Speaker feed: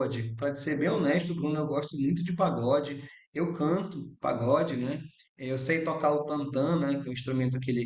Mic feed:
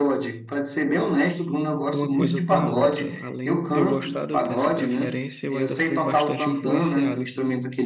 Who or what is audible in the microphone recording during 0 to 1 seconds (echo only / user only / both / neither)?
echo only